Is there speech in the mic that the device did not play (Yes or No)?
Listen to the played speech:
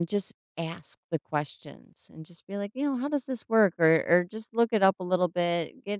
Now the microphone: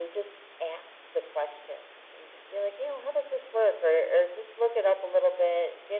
No